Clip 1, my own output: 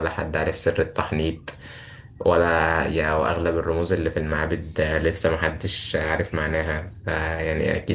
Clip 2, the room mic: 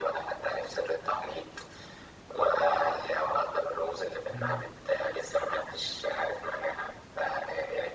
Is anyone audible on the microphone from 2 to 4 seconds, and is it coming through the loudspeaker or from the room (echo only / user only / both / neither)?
echo only